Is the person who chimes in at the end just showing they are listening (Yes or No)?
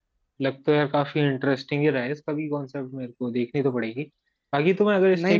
Yes